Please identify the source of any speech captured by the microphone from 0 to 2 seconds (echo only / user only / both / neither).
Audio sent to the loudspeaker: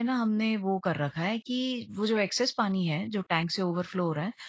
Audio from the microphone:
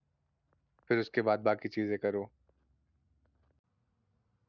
user only